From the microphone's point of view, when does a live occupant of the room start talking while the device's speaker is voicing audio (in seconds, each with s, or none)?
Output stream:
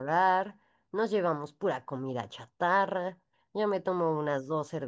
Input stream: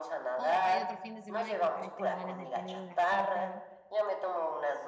0.3 s